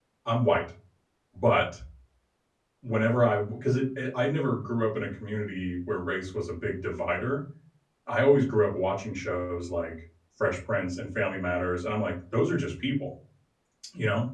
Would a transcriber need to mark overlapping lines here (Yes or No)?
No